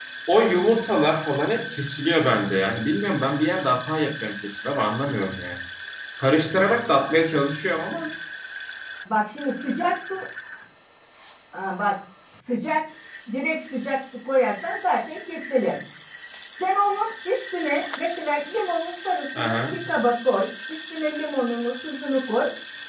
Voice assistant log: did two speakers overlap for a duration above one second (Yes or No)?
No